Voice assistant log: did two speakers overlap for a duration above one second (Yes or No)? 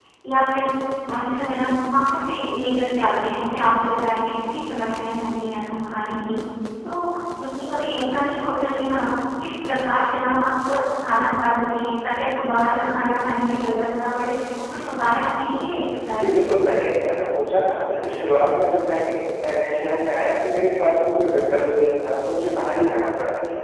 No